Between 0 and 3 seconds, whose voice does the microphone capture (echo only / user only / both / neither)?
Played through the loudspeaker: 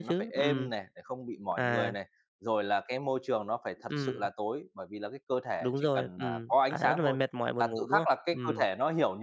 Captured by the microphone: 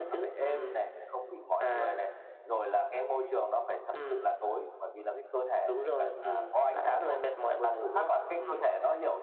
echo only